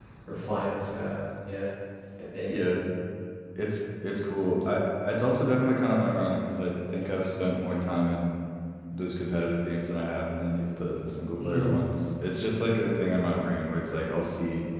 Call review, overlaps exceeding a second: none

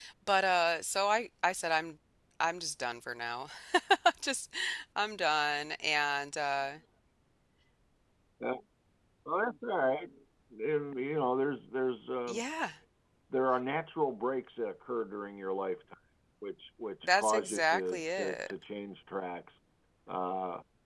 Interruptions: present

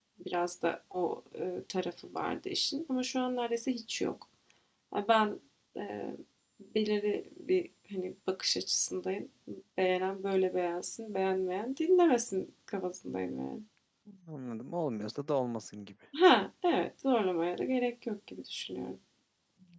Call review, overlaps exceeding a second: none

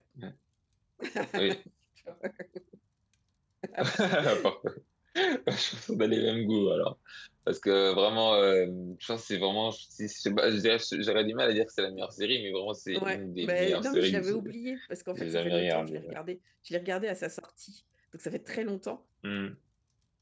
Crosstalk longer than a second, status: present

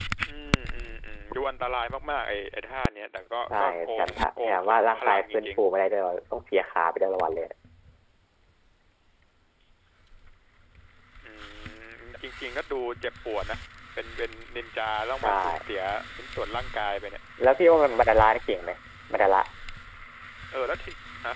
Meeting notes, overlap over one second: present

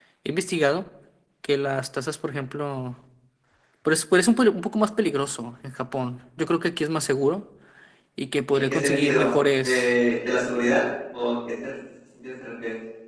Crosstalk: present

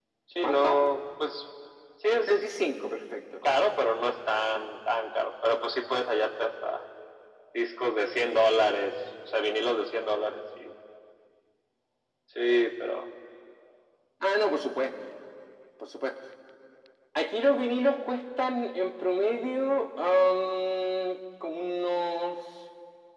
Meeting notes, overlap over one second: none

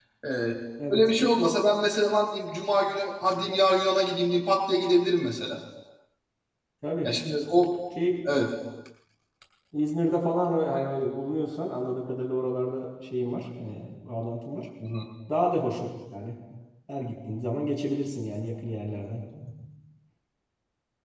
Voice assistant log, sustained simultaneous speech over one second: none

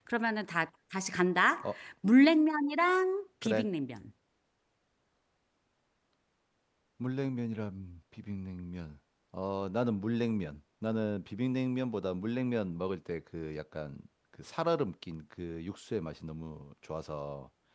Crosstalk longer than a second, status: none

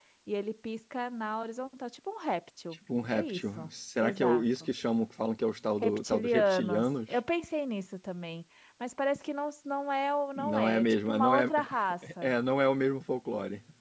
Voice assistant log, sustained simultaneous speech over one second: present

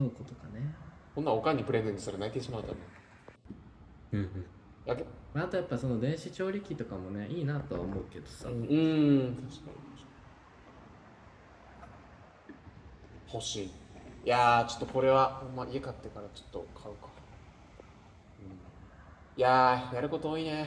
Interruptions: none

